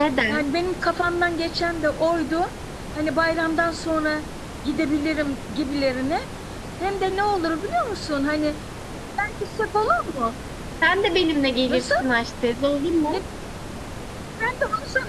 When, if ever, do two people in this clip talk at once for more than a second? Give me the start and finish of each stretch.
none

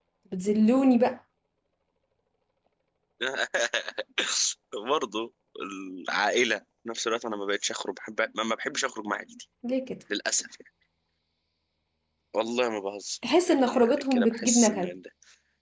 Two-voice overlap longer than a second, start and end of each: 13.6-14.9

